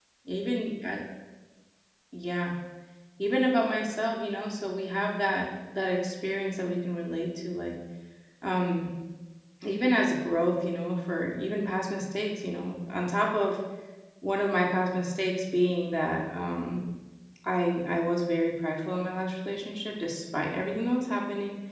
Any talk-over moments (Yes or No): No